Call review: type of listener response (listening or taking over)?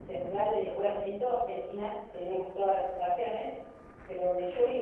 listening